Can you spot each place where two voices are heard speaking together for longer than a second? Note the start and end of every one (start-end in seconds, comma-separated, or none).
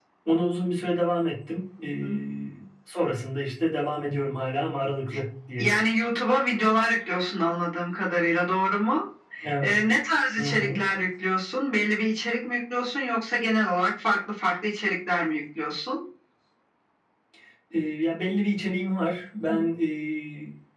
none